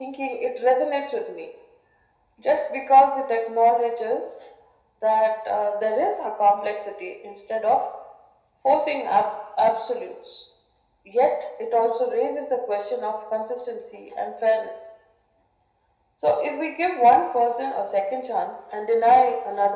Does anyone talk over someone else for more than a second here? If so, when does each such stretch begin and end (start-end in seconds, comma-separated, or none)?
none